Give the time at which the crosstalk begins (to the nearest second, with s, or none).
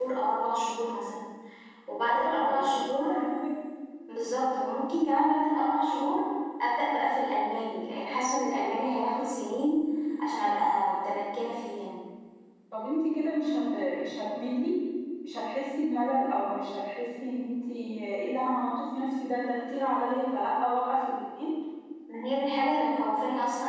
2 s